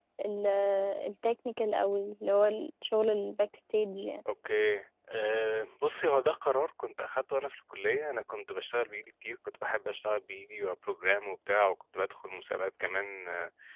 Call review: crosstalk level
none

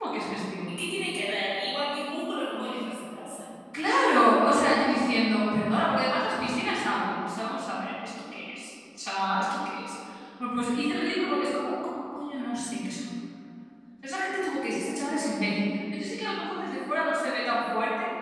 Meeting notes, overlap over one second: none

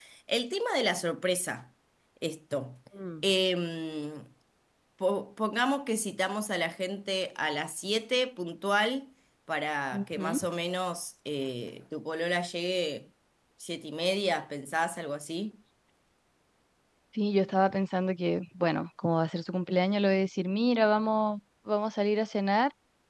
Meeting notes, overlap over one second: none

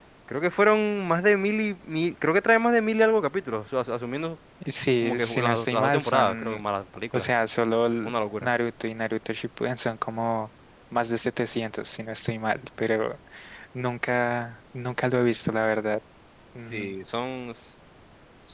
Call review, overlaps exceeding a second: present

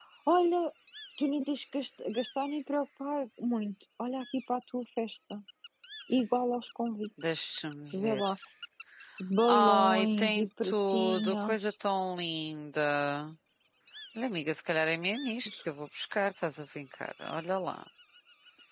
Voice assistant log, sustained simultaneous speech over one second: present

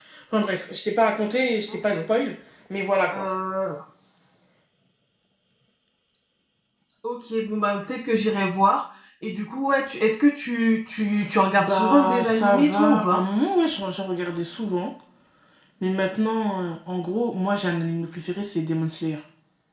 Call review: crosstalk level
present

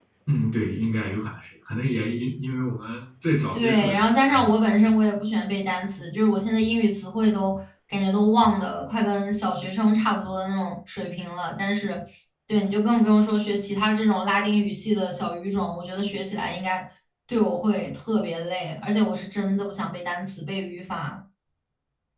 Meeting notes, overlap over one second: present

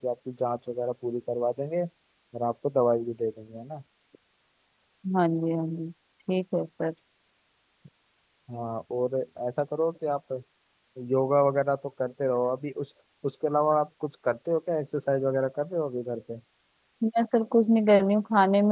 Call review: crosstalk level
none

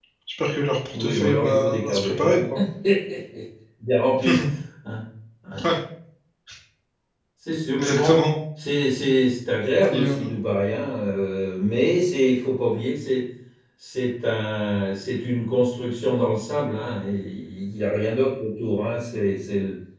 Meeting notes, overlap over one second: present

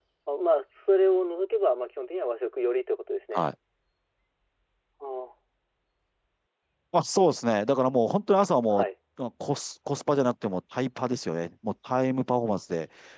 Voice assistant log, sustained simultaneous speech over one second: none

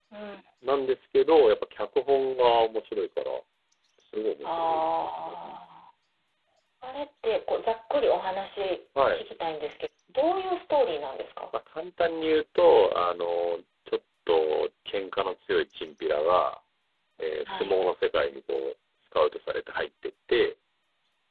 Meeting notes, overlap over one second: none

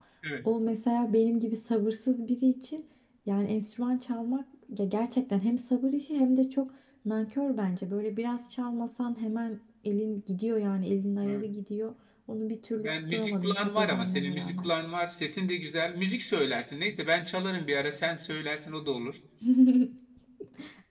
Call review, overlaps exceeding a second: present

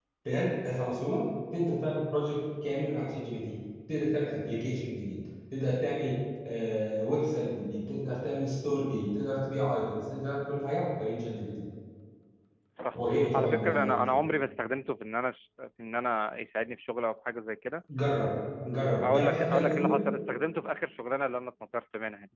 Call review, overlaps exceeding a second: present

